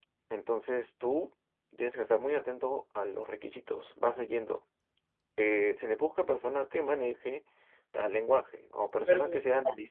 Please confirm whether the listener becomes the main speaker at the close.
No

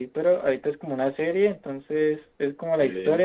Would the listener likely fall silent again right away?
Yes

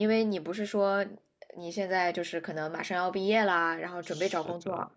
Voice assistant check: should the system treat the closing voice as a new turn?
Yes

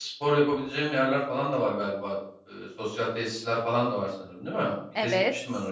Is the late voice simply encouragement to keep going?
No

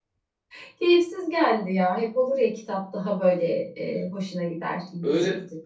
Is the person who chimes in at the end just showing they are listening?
No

